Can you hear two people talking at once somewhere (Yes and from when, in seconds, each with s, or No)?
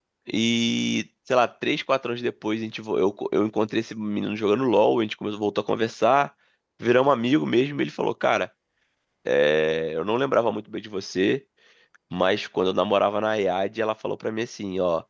No